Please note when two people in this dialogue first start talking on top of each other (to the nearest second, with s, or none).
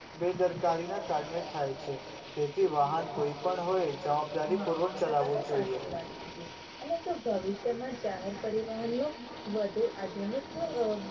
4 s